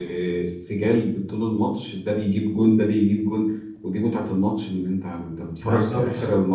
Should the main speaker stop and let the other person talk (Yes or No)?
No